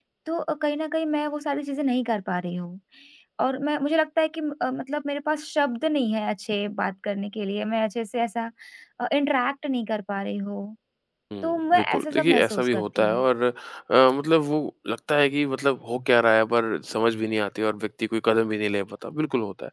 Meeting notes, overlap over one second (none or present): present